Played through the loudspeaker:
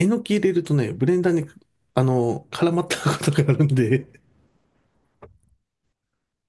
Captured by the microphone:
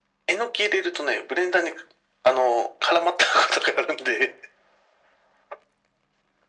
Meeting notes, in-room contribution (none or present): none